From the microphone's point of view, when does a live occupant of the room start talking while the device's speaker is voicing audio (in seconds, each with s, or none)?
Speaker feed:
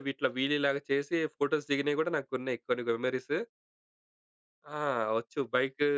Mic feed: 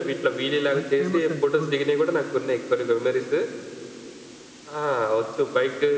0.5 s